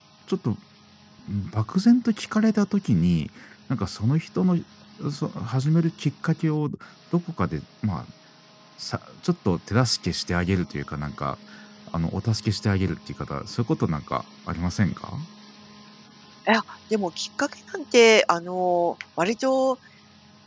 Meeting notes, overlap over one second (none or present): none